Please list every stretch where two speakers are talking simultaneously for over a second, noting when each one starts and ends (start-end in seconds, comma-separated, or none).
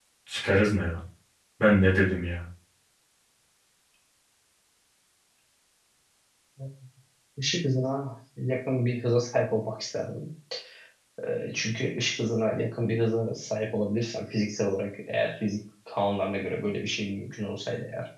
none